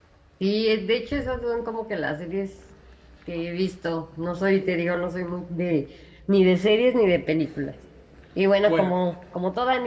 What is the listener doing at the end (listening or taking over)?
listening